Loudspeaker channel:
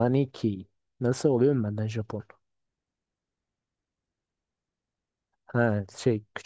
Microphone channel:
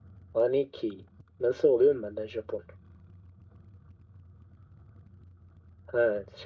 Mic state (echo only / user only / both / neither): echo only